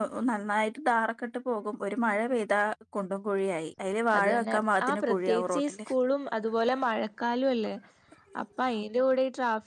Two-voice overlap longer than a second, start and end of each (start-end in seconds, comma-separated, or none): 4.2-5.8